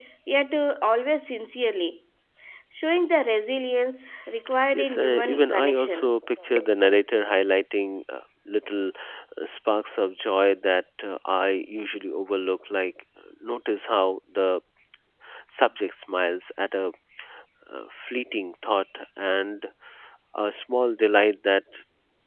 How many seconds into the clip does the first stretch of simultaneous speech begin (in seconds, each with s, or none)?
4.7 s